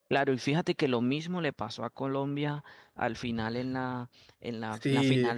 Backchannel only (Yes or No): Yes